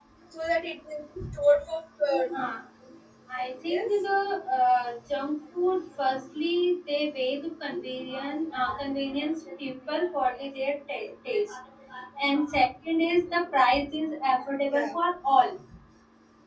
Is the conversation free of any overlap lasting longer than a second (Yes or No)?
Yes